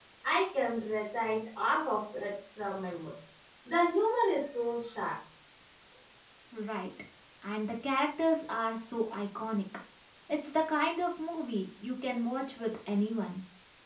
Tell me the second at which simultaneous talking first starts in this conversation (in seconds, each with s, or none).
none